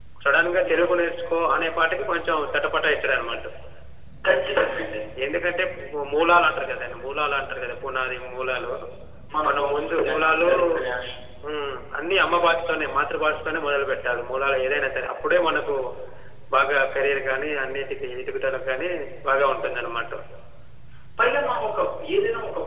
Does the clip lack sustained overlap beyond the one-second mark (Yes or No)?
No